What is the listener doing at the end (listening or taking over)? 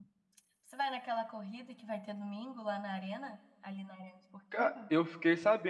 taking over